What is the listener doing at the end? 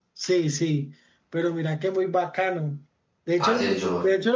listening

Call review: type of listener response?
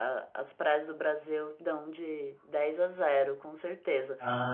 listening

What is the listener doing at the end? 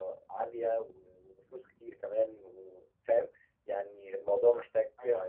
taking over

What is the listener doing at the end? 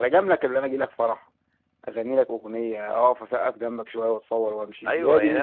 taking over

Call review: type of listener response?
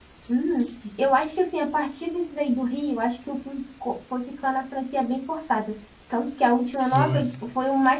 listening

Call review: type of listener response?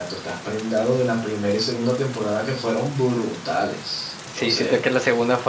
taking over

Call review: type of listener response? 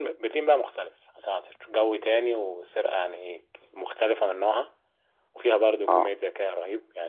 listening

